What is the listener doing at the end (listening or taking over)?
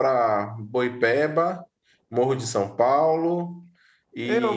taking over